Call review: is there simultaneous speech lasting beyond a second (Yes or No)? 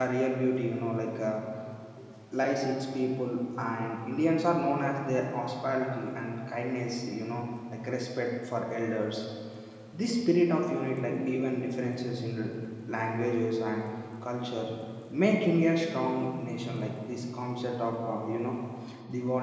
No